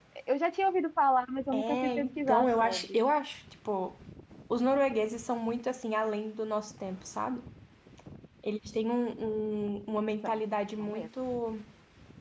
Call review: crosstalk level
present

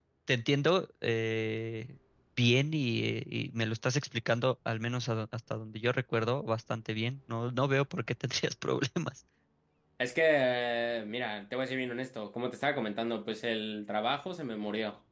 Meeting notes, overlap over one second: none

